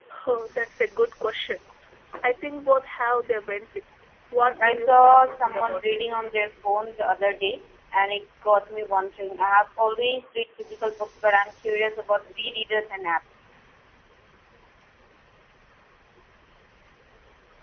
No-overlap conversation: No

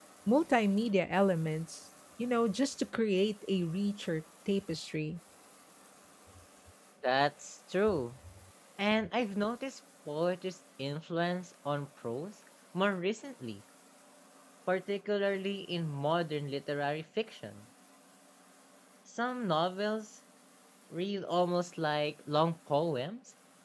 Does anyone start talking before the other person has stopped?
No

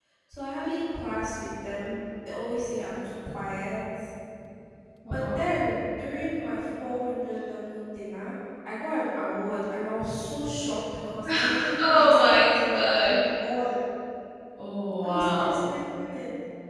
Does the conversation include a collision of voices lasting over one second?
Yes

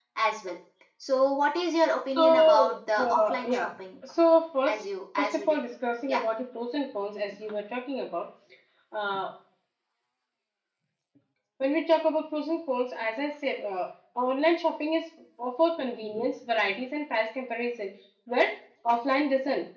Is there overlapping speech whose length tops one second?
Yes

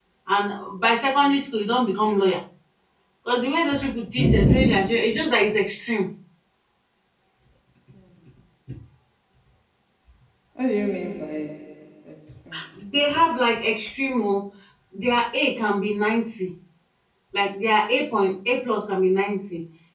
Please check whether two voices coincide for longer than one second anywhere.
No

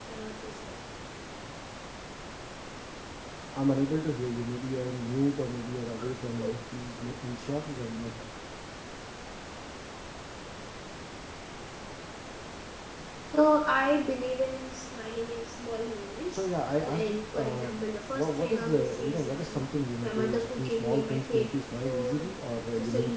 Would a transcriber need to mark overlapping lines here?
Yes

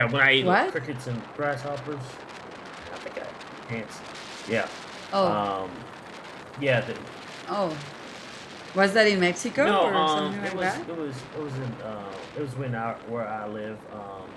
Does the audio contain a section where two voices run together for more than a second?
Yes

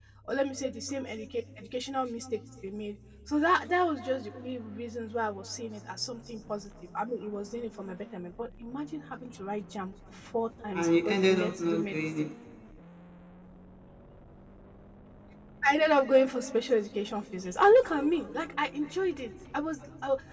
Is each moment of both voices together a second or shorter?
No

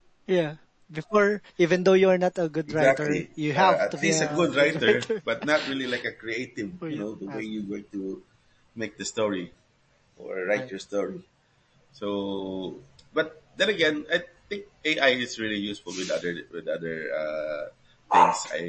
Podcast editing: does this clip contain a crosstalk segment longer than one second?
Yes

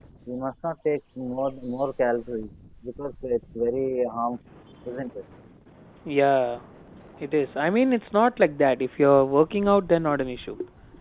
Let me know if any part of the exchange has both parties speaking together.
No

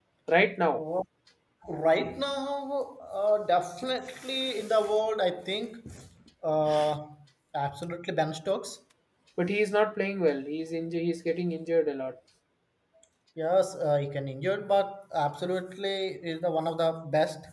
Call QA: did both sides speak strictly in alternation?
Yes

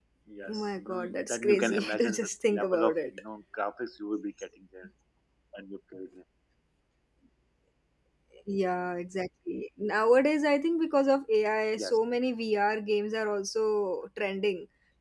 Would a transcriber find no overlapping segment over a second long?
No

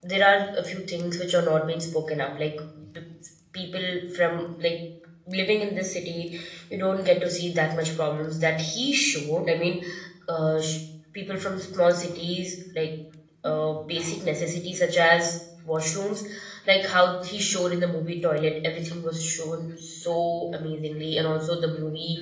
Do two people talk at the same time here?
No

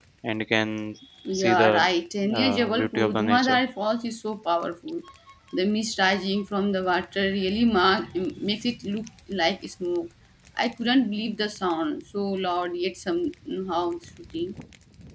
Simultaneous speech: Yes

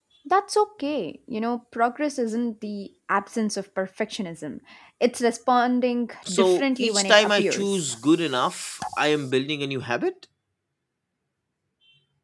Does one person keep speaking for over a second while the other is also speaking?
Yes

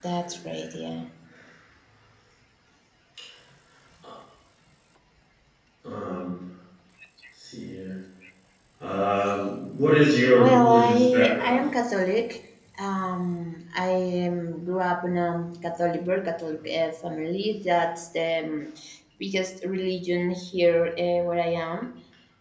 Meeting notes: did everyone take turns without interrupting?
No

